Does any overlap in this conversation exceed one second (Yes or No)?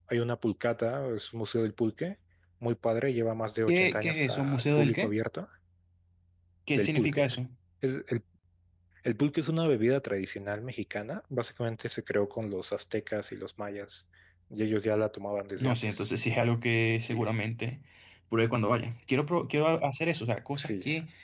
Yes